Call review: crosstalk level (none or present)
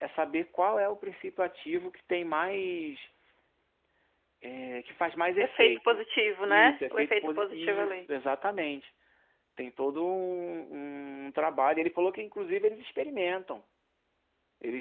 present